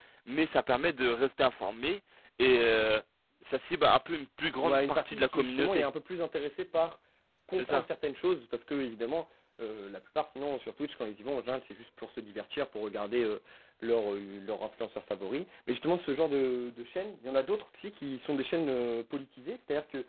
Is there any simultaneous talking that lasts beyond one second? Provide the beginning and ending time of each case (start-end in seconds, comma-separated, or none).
4.6-5.8